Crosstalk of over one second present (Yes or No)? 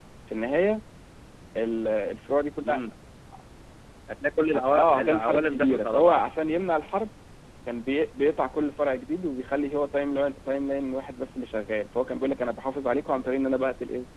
Yes